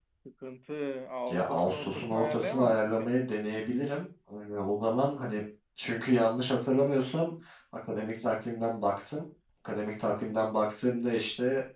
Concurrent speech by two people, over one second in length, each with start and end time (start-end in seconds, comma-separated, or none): 1.3-3.3